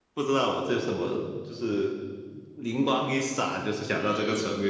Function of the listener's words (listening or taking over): listening